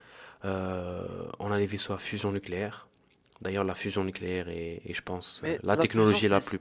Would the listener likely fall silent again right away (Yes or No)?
No